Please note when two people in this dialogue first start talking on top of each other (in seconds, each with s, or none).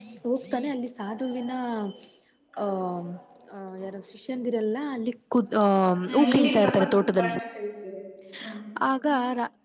6.1 s